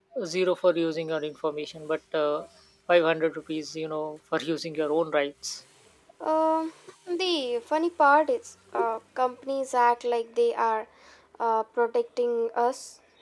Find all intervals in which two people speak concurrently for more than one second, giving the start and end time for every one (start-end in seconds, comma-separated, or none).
none